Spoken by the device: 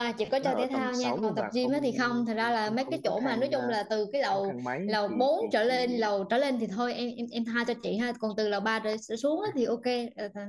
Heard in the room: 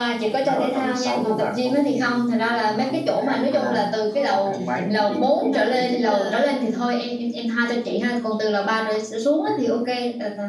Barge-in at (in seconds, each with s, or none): 3.5 s